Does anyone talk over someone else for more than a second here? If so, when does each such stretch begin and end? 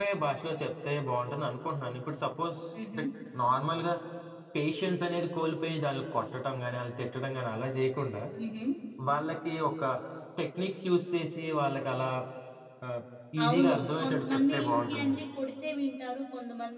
13.4-15.2

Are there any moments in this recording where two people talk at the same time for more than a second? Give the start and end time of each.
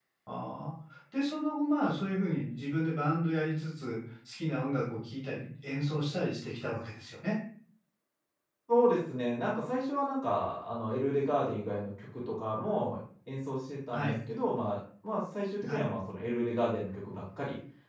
none

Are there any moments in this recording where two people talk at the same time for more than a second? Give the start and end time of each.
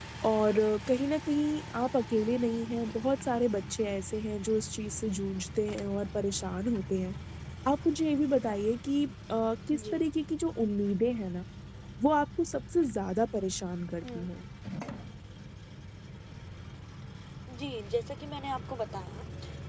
none

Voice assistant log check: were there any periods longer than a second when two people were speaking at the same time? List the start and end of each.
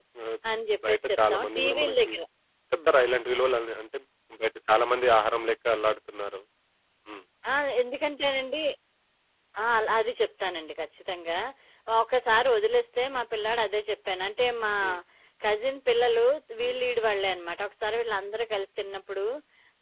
0.9-2.1

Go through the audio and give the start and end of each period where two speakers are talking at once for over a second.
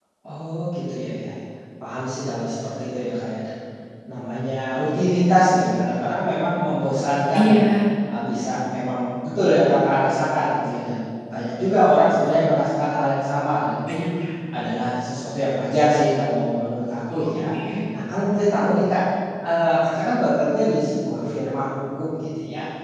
none

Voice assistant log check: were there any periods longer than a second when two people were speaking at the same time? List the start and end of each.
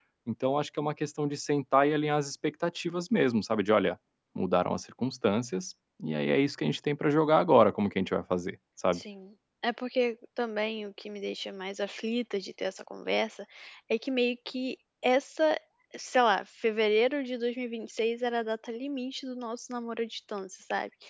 none

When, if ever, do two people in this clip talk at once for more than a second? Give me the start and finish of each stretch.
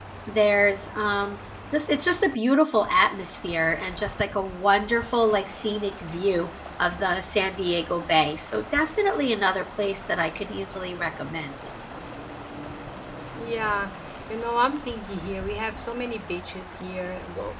none

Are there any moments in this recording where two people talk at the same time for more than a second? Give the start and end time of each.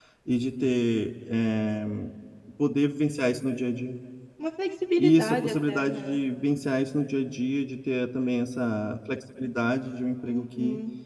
5.0-6.2

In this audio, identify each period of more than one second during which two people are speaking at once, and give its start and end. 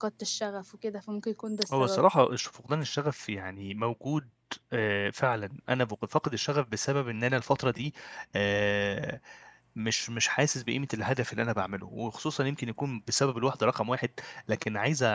none

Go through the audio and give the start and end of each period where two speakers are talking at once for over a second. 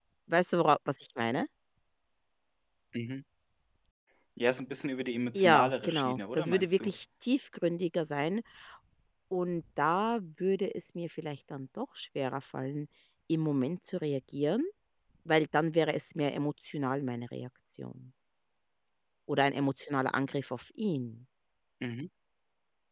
5.4-6.9

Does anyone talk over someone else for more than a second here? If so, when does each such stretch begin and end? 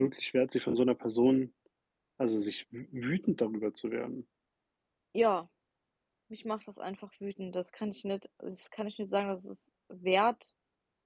none

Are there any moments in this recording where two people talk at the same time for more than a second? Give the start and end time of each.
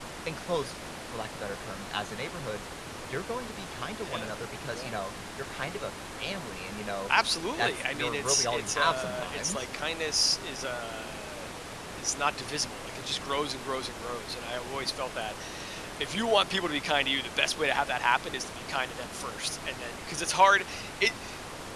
7.5-9.7

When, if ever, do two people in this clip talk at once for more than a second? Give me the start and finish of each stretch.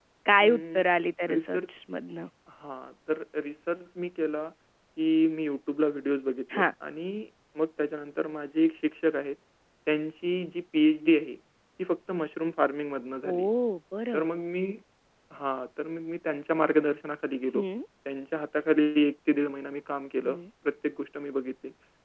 none

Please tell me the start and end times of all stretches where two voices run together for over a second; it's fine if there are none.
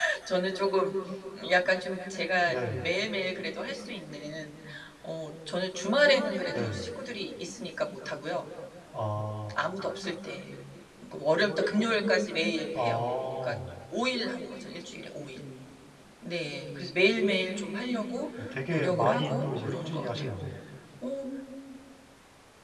18.7-20.3

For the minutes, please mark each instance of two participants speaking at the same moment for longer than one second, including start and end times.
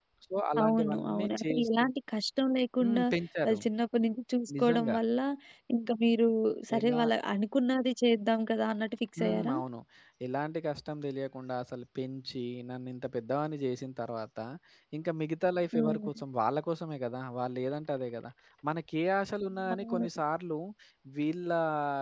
0.6-1.8

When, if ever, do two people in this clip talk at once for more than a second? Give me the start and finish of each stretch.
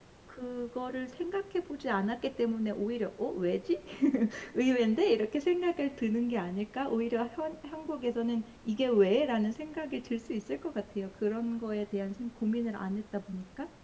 none

